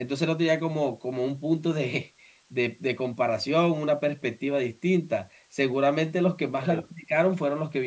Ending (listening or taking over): listening